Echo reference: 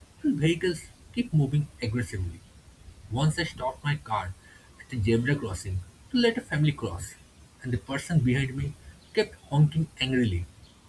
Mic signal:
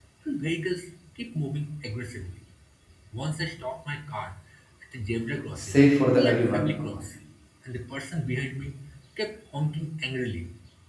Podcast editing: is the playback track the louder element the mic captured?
No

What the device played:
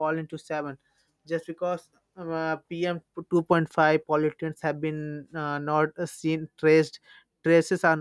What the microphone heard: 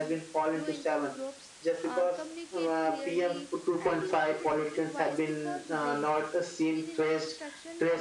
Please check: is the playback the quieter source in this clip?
No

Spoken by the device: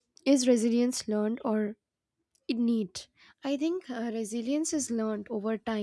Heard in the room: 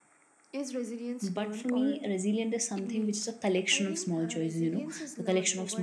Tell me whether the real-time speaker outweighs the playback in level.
Yes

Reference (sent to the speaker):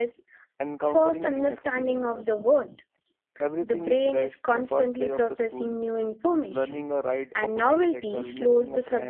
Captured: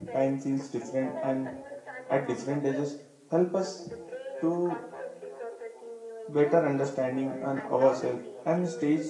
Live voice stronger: Yes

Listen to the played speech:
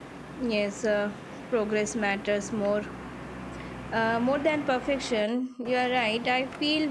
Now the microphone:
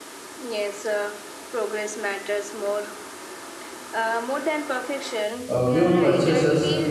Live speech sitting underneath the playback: No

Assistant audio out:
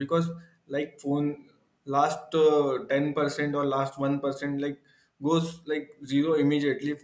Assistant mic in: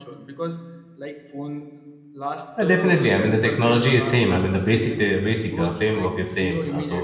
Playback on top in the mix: No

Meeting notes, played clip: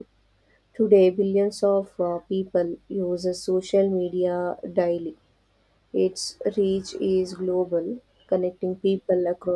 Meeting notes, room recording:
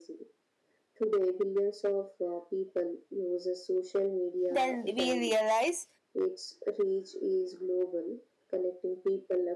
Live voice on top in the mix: Yes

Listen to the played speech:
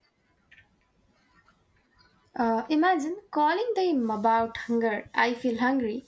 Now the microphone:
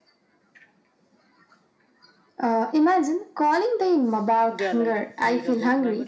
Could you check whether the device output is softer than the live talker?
No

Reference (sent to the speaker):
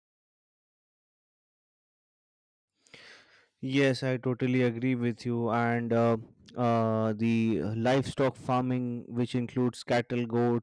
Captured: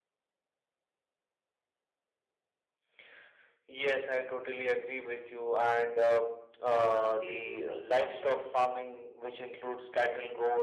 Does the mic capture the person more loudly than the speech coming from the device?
No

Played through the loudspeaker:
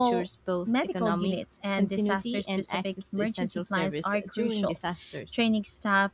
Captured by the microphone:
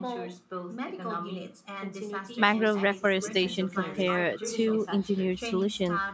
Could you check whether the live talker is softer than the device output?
No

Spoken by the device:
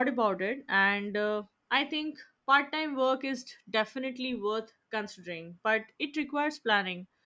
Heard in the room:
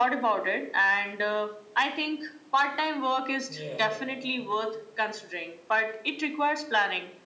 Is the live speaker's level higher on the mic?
No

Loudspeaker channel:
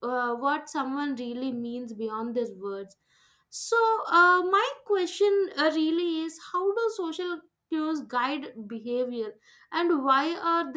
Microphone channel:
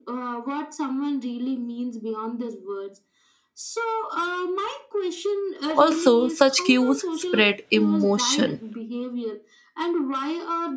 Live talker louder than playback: Yes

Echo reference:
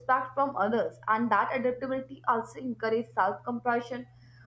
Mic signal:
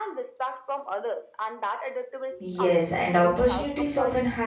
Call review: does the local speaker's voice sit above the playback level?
Yes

